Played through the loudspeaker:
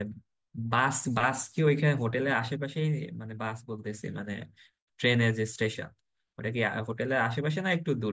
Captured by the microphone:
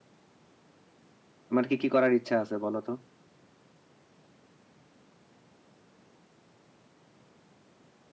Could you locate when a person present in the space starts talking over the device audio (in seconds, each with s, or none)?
1.5 s